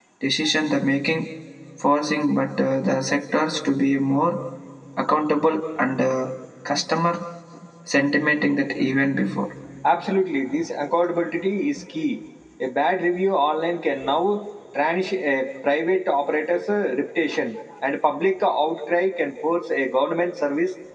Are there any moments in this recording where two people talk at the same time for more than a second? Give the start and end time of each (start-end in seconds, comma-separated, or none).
none